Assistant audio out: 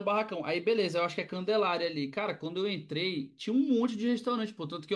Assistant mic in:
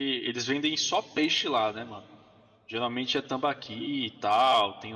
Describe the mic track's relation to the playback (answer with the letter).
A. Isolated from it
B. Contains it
A